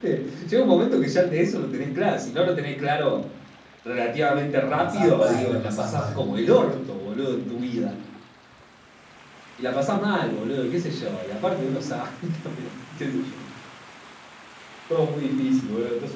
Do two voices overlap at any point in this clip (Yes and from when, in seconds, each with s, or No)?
Yes, from 4.7 s